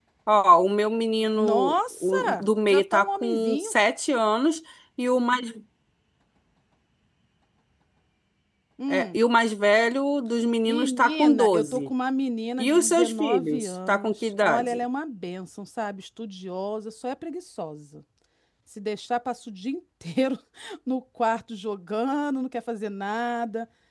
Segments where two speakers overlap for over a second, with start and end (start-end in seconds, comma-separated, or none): 1.4-3.7, 10.7-11.9, 12.6-14.8